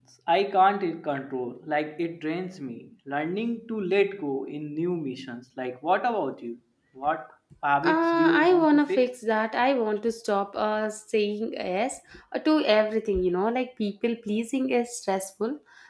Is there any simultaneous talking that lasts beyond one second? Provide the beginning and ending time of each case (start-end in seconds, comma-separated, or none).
7.8-9.1